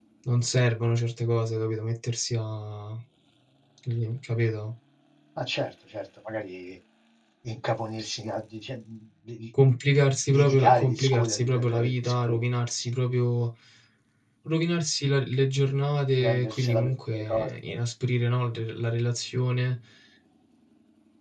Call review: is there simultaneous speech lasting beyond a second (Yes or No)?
Yes